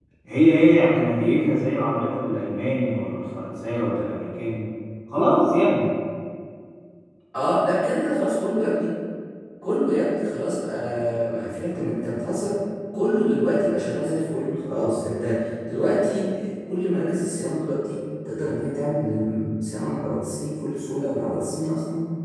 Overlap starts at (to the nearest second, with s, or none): none